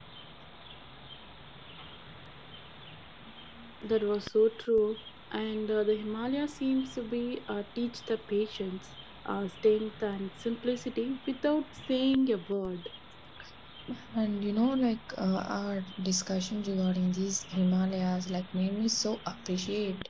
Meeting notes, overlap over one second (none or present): none